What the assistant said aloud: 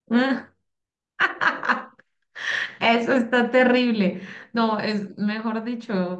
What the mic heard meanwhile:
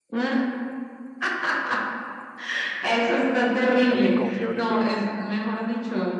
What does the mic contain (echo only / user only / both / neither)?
both